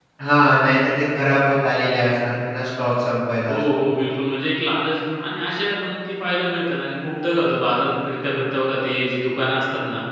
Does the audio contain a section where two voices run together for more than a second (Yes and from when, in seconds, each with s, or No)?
No